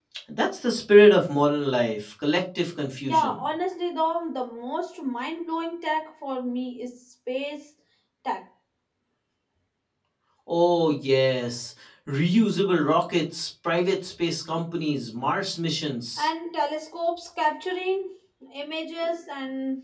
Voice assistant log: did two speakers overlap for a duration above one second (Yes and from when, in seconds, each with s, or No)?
No